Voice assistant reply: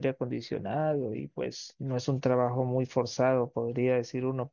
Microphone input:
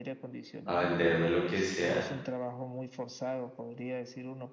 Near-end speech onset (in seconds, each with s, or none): 0.6 s